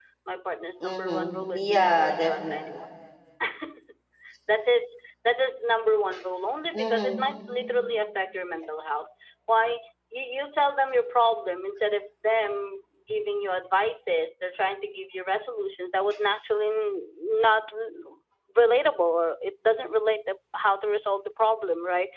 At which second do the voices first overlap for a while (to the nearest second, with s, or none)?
1 s